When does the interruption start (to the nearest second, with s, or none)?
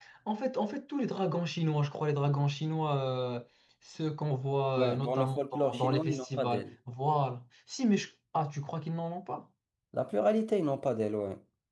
5 s